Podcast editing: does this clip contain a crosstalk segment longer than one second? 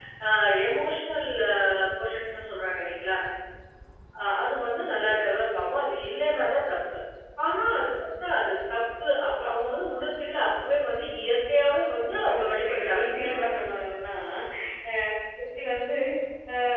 Yes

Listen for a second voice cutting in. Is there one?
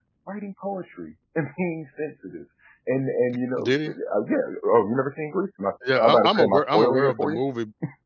Yes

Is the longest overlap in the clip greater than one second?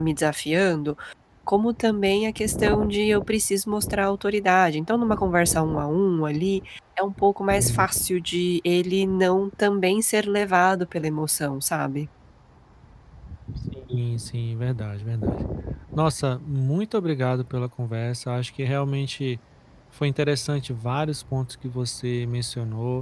No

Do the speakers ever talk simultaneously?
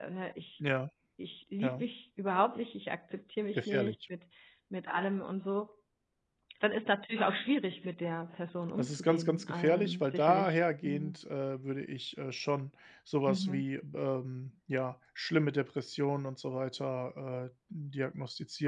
Yes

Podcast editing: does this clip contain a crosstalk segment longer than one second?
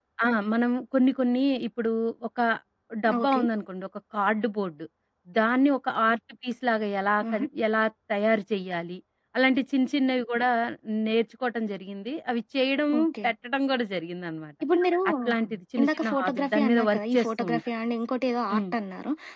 Yes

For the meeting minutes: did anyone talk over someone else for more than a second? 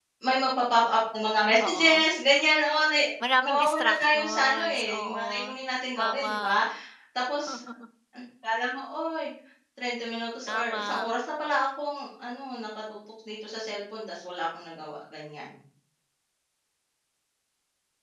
Yes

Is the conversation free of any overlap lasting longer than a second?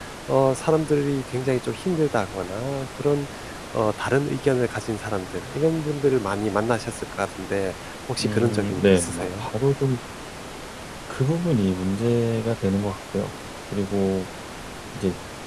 No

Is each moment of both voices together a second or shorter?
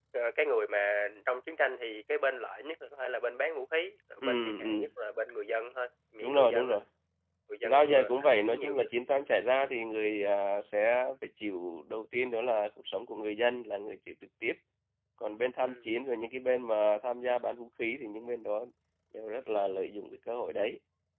No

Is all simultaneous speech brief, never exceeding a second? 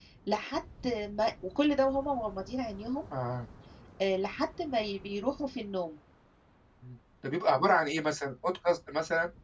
Yes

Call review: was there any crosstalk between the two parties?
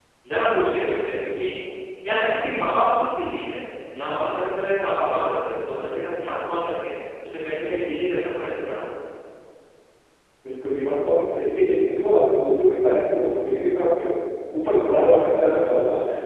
No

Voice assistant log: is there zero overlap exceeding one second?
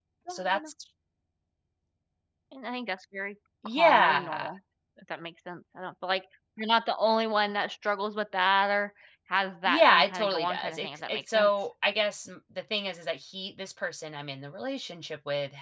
No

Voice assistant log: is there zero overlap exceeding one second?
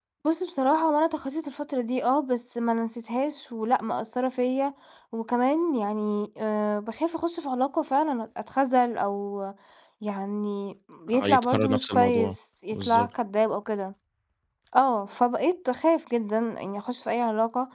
No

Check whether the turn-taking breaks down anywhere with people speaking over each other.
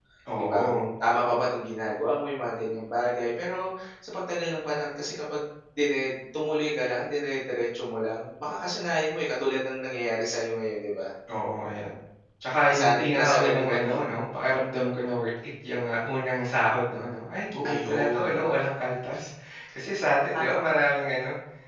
Yes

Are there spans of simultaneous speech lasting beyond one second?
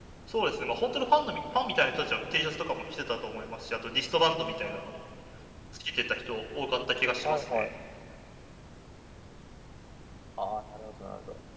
No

